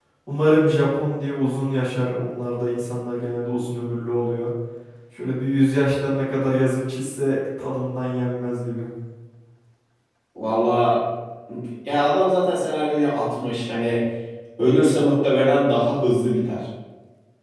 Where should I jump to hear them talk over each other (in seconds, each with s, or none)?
none